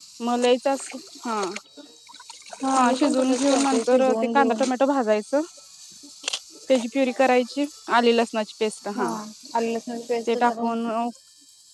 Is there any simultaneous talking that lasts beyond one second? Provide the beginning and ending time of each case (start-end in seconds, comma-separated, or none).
2.8-4.7